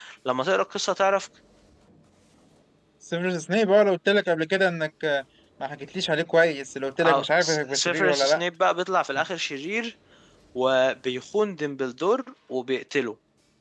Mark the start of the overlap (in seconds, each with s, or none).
7.0 s